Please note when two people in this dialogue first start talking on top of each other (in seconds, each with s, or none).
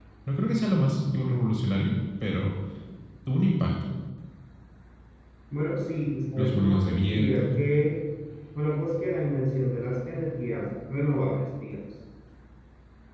6.4 s